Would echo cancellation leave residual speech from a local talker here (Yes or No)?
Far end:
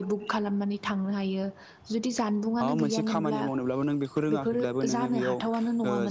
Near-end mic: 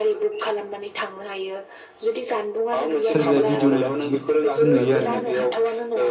Yes